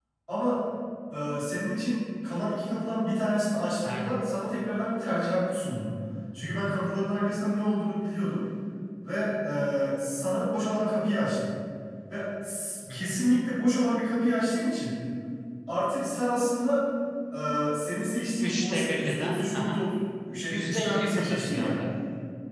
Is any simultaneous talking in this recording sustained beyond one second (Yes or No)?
Yes